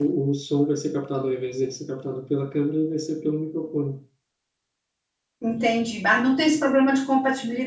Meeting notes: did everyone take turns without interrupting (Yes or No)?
Yes